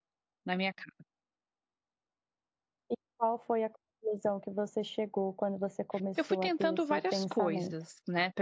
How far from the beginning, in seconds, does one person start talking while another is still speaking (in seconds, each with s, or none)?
6.2 s